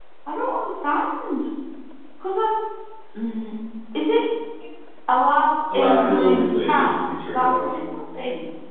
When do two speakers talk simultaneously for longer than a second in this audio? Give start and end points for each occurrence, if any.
5.7-7.5

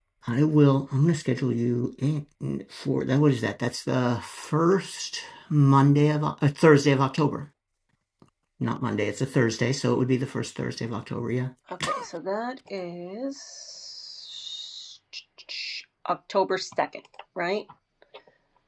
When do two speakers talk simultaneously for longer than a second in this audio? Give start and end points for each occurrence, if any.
none

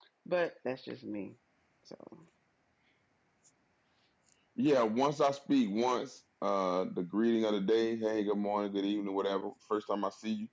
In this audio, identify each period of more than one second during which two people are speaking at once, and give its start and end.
none

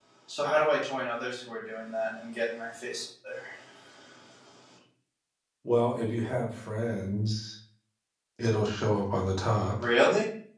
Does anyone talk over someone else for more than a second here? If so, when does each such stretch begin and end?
none

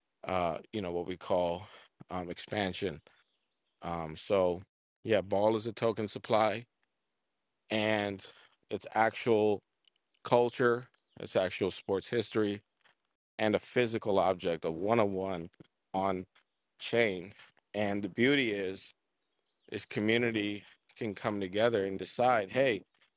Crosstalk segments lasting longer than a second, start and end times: none

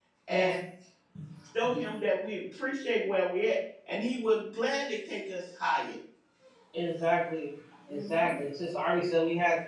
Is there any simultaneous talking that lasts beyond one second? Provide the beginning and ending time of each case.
none

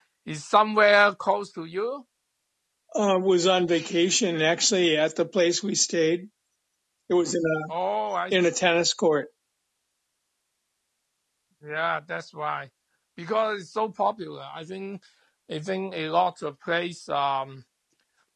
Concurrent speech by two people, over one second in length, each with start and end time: none

